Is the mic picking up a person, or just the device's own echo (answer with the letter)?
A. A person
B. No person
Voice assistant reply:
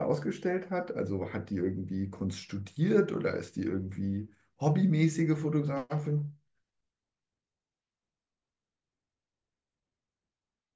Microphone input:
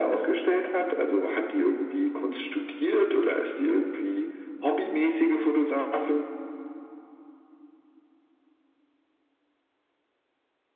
B